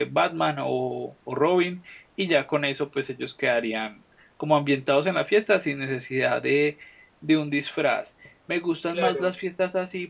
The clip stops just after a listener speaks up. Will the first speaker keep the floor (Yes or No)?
Yes